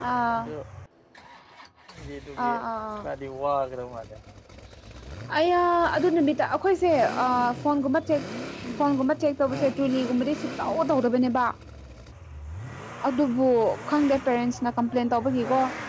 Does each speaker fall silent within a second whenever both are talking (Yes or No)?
Yes